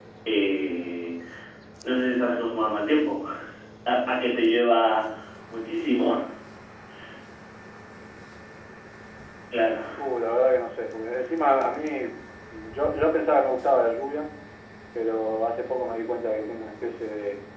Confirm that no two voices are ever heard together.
Yes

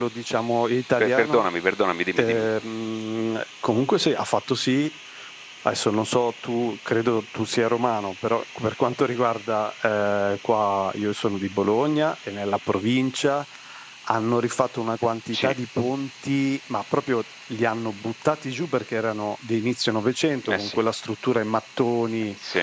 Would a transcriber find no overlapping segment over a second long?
Yes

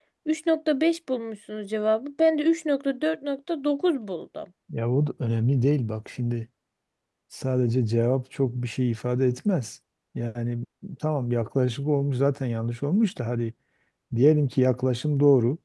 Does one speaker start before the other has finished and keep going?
No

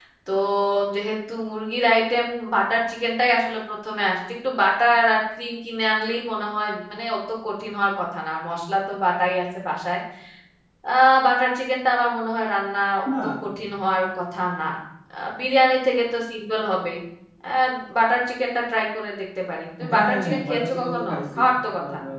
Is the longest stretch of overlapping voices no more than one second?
No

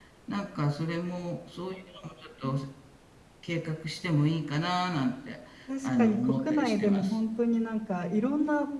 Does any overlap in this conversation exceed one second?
Yes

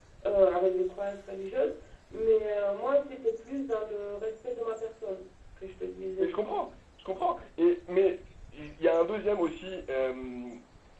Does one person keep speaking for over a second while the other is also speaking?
No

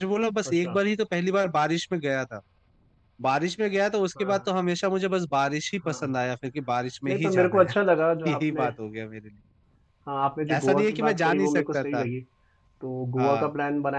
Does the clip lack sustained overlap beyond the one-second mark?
No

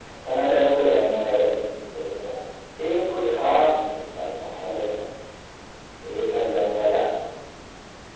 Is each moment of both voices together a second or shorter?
No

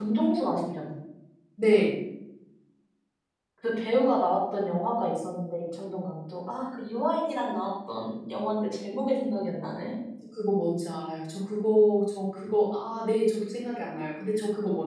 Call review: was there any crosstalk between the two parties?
No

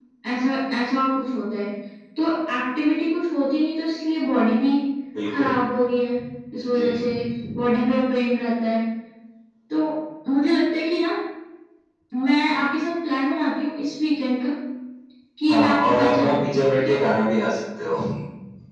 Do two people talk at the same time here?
Yes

